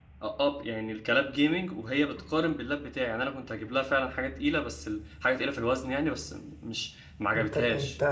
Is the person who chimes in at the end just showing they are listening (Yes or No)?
No